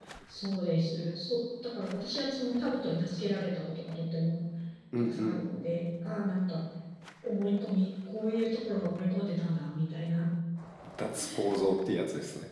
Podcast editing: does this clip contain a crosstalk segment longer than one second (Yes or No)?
No